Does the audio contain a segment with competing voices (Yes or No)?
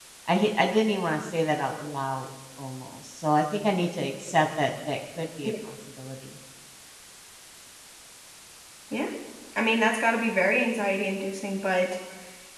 No